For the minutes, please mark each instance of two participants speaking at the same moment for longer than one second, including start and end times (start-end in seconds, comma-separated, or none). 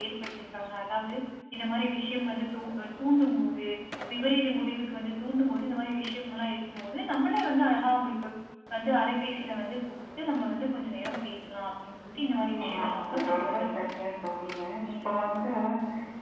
12.6-14.0